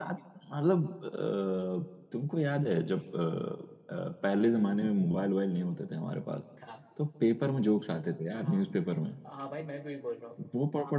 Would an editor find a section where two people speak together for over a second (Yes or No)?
No